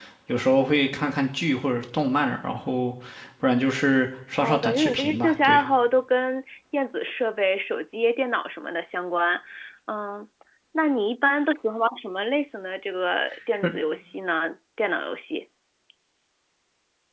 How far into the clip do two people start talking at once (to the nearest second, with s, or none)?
4 s